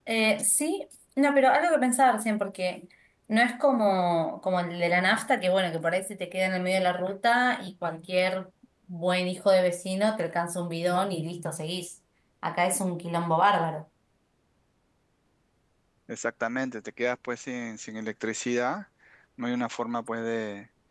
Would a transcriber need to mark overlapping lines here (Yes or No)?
No